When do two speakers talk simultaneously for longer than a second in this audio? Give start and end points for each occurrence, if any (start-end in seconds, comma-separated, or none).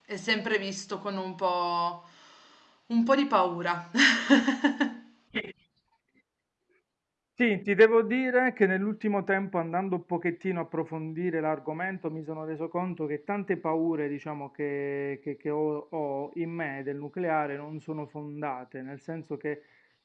none